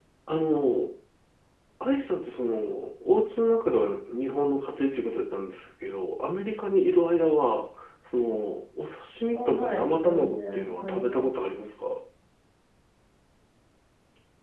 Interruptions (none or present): present